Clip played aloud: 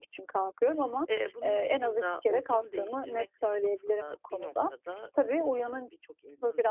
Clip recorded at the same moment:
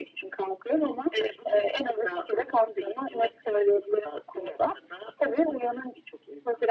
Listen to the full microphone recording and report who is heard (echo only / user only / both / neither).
echo only